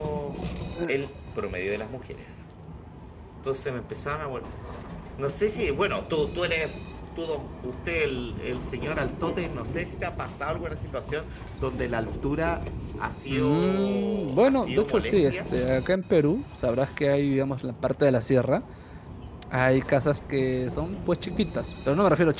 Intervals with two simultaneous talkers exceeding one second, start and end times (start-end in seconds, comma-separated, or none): 13.3-15.4